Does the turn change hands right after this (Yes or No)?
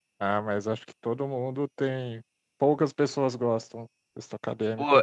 Yes